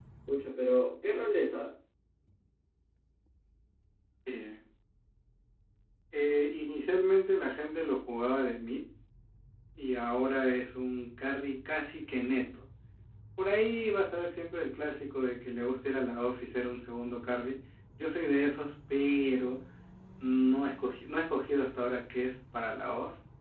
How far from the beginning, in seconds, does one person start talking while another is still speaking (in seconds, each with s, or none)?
none